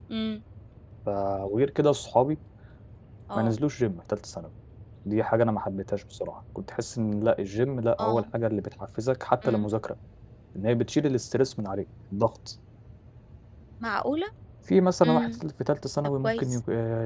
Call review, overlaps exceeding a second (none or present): none